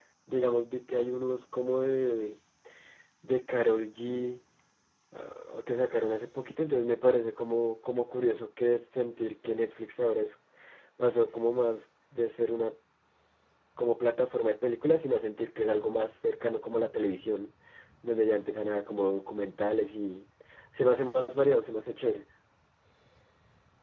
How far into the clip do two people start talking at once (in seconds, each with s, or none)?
none